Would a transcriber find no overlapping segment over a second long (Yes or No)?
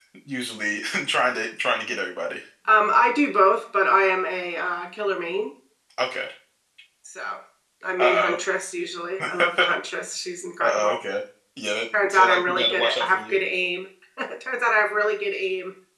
No